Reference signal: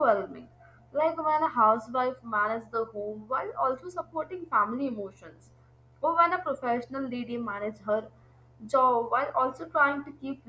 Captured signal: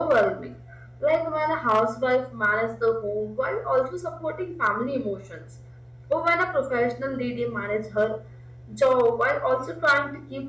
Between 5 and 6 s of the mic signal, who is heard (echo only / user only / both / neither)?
echo only